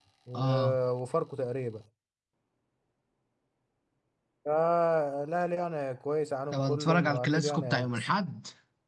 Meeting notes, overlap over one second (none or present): present